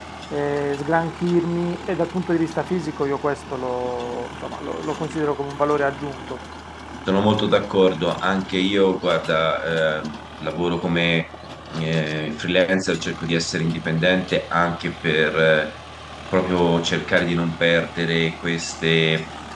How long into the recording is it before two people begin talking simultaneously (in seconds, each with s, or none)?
none